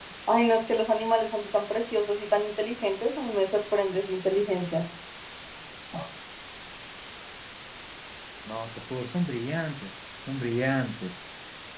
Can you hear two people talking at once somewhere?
No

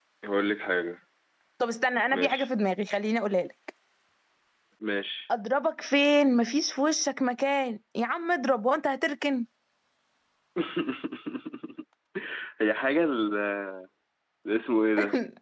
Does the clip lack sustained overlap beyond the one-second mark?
Yes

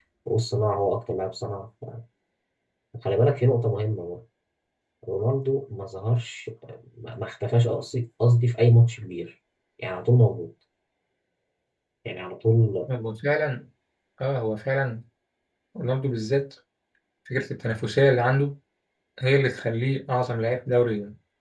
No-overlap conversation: Yes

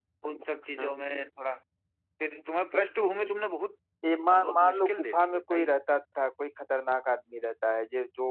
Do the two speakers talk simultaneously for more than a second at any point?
Yes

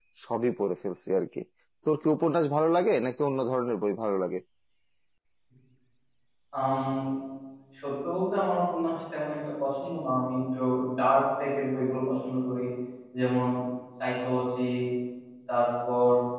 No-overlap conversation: Yes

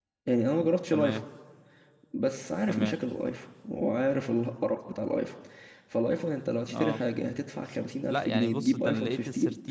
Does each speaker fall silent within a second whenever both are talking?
No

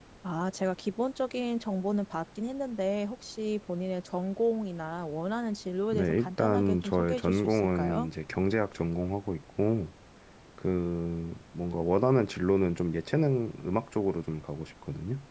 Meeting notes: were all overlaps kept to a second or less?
No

